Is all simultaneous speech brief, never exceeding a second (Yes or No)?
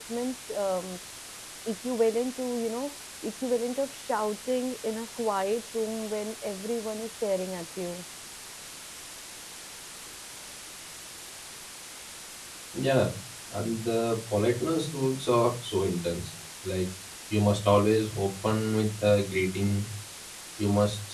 Yes